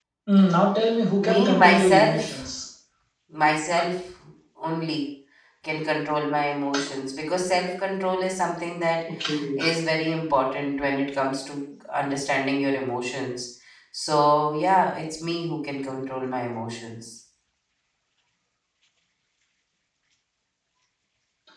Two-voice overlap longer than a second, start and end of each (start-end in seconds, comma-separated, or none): 1.2-2.4